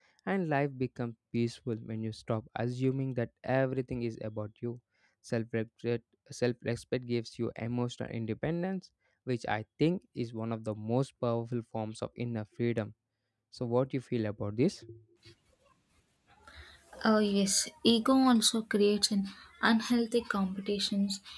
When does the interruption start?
none

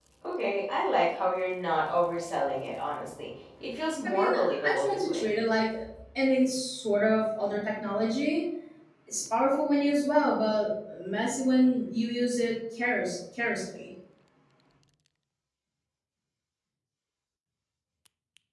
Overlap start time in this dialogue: 4.0 s

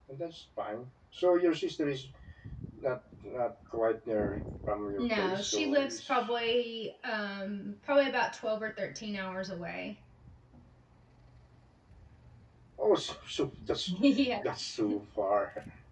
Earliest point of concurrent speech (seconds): 5.0 s

